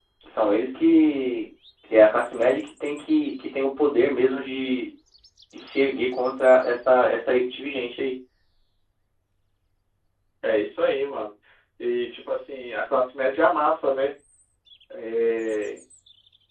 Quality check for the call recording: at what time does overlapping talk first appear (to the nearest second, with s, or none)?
none